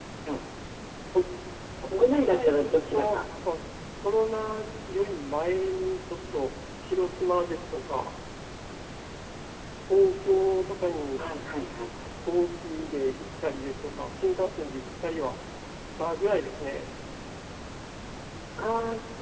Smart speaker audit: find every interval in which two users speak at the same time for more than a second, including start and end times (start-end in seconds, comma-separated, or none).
1.9-3.2